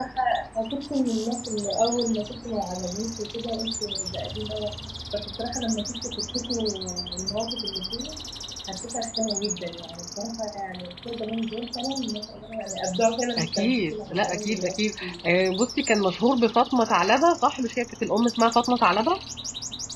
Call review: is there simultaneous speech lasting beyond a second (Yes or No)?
Yes